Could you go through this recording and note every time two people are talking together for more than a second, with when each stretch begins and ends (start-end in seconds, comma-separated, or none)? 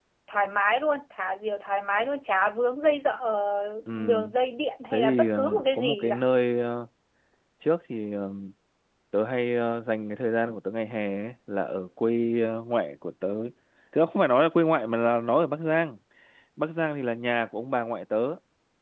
4.9-6.2